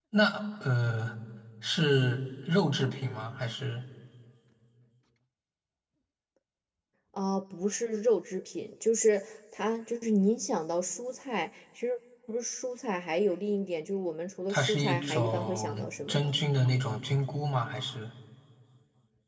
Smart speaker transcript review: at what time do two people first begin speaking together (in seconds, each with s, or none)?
14.5 s